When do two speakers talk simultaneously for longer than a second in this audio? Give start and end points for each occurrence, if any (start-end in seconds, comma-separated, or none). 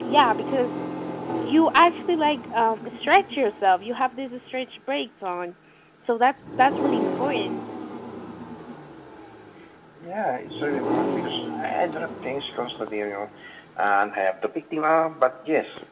none